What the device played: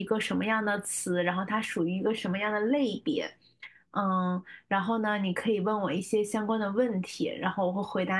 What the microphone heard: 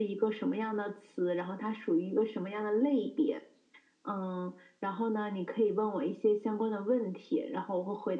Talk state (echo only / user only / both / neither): echo only